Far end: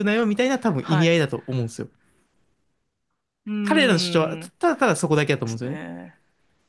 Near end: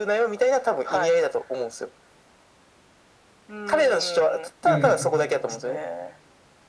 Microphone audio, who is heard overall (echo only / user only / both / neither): both